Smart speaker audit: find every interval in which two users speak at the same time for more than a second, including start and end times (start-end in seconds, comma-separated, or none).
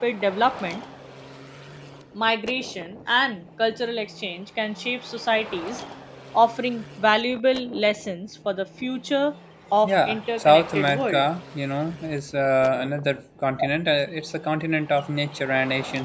9.8-11.2